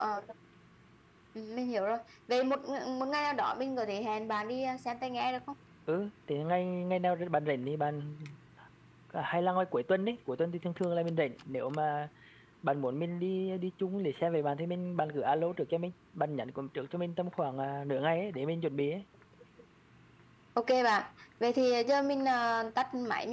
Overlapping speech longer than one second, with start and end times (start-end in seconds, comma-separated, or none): none